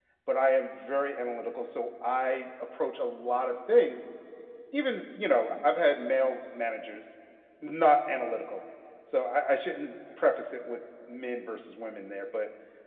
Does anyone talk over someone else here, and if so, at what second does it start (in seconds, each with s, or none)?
none